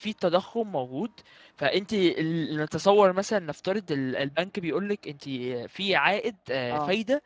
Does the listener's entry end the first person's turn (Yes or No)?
No